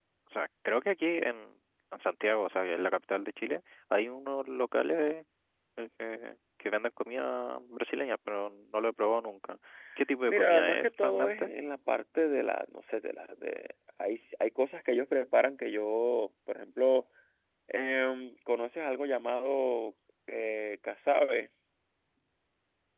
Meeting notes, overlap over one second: present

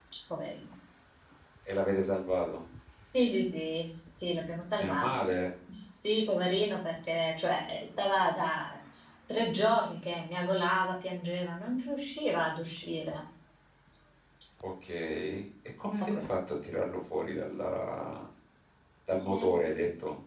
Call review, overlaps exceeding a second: none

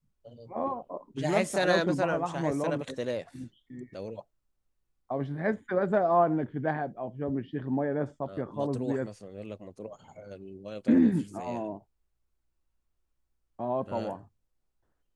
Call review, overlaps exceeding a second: present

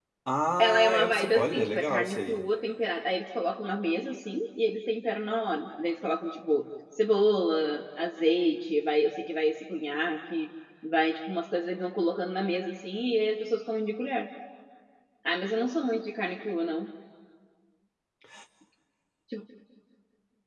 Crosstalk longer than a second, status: present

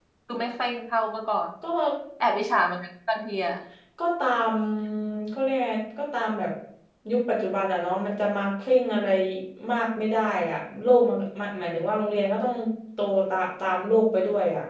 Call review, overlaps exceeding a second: none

